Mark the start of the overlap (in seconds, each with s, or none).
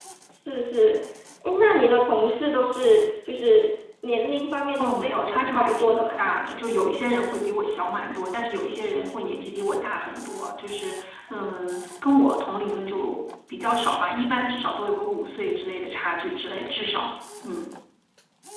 4.8 s